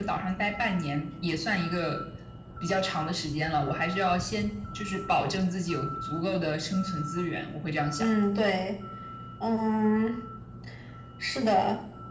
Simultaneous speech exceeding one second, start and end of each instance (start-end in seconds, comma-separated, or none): none